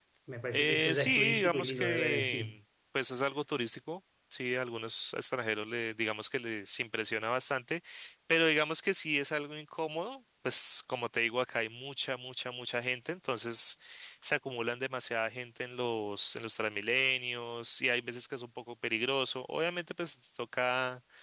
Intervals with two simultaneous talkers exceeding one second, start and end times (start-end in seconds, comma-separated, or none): 0.5-2.6